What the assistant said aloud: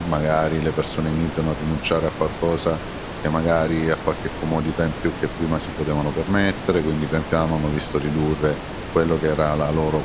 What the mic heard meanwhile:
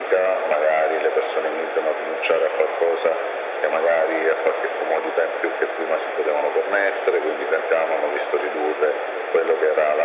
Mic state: echo only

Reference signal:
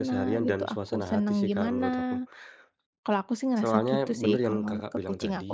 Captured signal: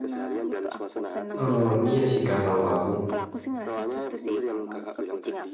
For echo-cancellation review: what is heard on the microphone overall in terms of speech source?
both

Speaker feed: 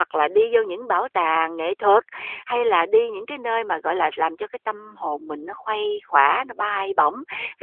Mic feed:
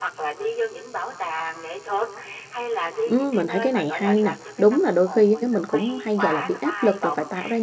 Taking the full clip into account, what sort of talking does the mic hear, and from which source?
both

